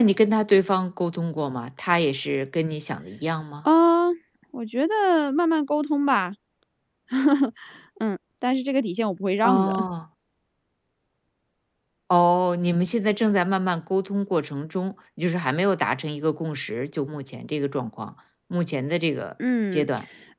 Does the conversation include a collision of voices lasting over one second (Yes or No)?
No